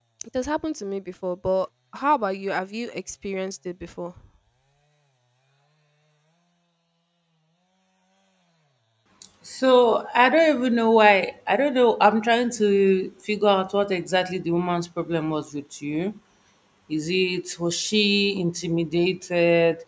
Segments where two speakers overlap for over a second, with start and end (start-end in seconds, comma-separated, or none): none